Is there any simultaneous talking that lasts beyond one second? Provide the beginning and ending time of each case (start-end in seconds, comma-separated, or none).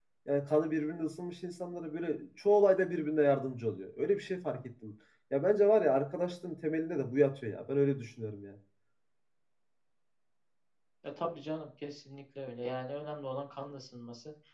none